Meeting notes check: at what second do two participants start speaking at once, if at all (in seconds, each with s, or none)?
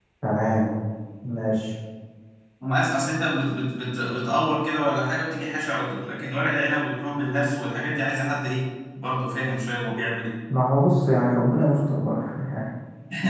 none